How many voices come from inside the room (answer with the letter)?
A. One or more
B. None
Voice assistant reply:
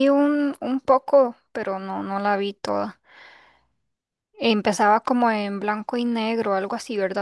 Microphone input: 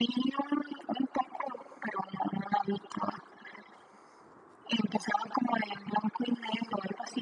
B